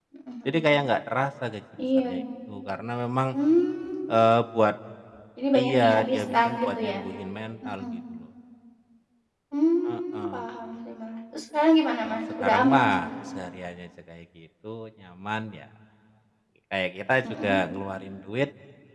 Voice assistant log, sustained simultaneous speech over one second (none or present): present